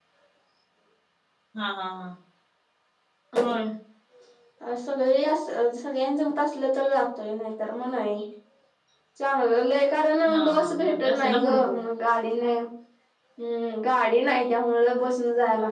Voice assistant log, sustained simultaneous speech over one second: present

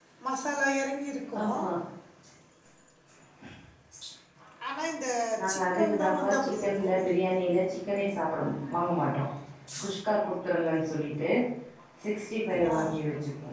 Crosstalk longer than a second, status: present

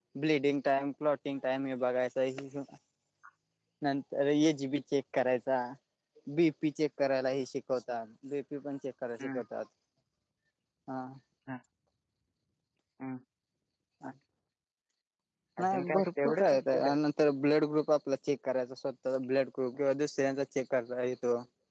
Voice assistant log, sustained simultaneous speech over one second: present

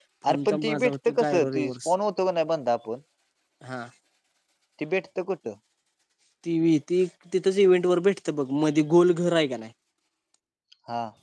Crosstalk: present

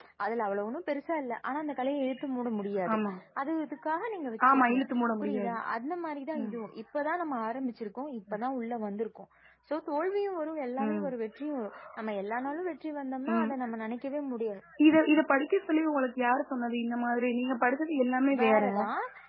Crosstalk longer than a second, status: none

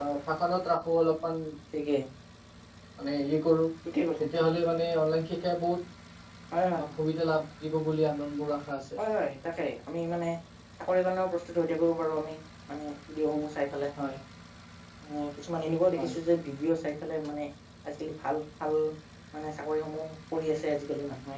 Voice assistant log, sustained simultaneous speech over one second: none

